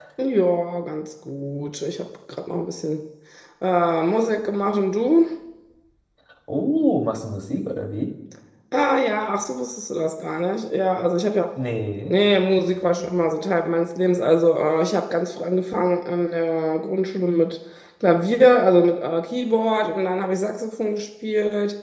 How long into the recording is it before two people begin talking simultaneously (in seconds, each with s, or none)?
none